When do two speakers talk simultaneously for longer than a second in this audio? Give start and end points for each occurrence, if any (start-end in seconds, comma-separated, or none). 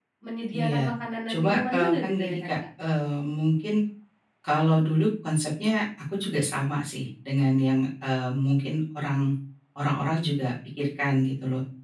1.3-2.5